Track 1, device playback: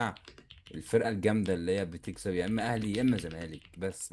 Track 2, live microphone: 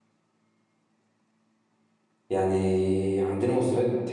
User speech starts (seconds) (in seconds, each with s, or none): 2.3 s